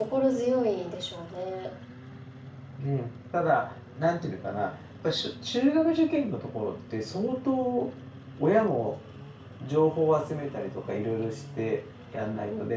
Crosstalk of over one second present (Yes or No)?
No